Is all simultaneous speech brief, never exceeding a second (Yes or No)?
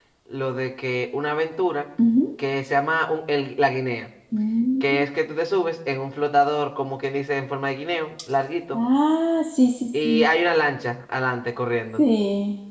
Yes